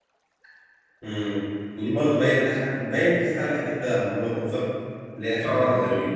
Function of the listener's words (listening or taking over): taking over